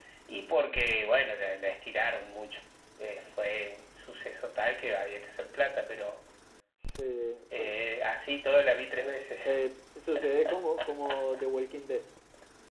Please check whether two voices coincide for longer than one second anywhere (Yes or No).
No